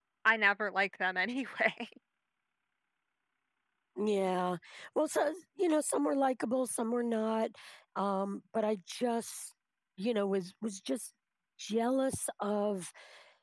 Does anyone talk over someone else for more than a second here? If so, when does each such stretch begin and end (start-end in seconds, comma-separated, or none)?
none